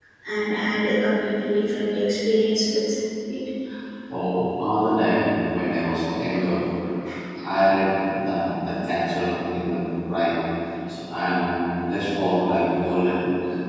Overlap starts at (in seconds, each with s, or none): none